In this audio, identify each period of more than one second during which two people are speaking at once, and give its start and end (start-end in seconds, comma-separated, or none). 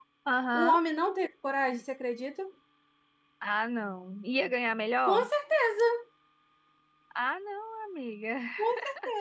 none